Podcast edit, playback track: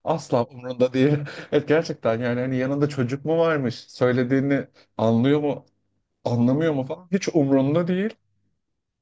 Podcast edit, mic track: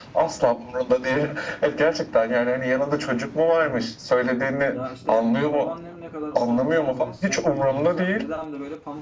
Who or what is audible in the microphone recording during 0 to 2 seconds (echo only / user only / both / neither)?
echo only